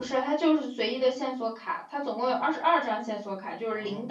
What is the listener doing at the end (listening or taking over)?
listening